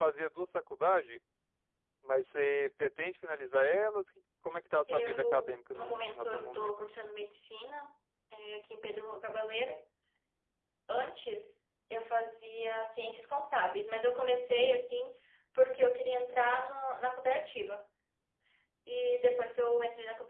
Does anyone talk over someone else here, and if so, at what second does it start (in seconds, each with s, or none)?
4.9 s